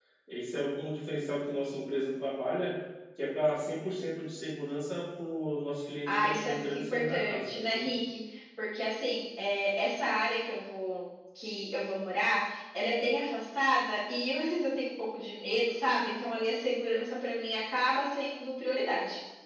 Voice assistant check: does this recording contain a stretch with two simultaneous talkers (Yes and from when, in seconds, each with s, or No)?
Yes, from 6.1 s